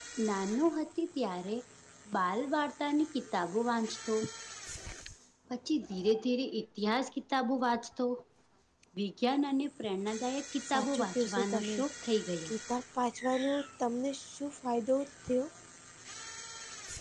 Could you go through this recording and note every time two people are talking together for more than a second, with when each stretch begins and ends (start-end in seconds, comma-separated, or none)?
10.6-11.8